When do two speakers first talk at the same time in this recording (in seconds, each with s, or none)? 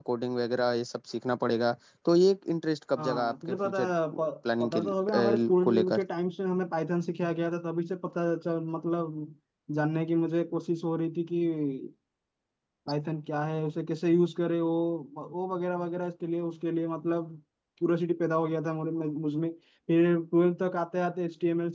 3.0 s